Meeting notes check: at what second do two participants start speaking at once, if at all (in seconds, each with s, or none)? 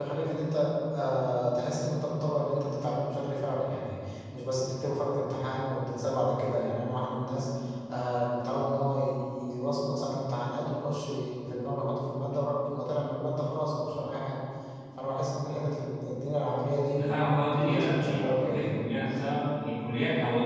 16.9 s